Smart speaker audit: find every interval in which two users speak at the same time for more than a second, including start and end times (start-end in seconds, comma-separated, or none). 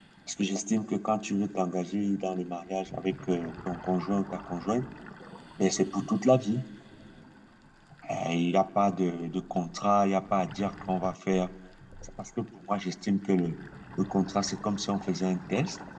none